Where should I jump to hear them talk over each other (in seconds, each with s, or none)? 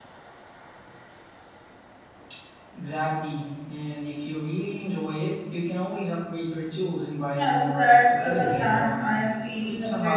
7.3 s